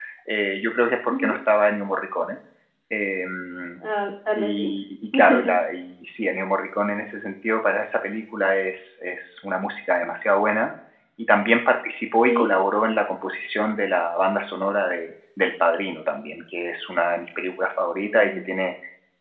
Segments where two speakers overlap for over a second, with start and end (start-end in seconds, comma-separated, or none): none